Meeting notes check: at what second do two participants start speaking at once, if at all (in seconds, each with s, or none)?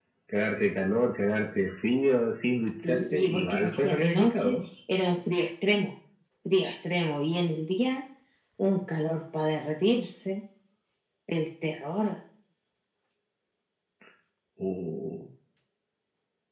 2.8 s